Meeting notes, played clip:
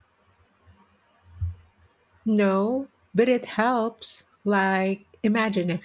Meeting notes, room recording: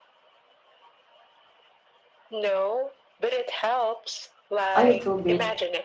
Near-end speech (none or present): present